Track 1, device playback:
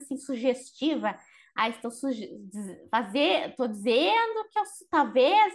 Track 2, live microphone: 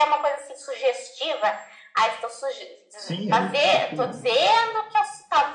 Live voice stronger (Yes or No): No